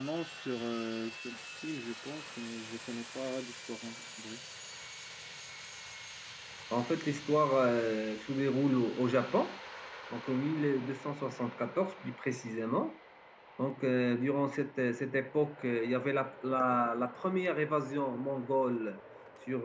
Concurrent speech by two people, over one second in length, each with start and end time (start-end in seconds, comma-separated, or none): none